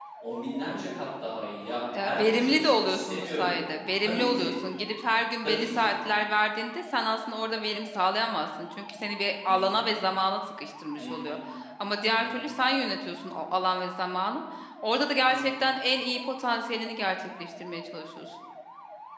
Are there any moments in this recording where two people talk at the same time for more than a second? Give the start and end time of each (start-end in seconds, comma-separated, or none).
1.9-3.5